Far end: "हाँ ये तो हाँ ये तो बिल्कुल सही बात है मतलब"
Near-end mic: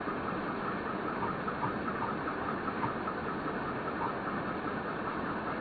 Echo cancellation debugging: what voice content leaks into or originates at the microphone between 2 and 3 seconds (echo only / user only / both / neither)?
neither